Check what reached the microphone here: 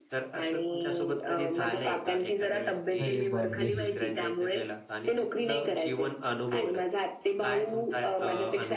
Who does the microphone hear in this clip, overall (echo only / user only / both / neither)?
both